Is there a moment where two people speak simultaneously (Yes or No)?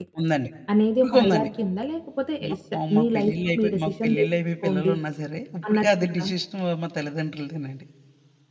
Yes